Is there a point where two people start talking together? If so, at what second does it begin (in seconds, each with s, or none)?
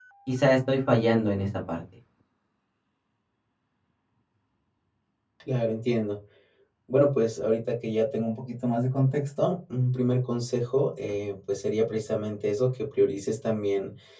none